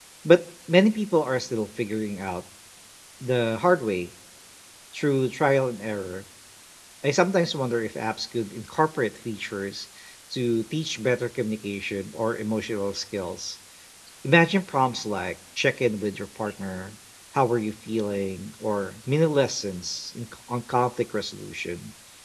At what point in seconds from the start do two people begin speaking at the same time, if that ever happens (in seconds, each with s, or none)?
none